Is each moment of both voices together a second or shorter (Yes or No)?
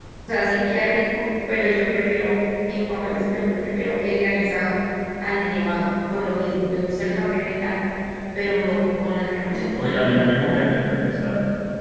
No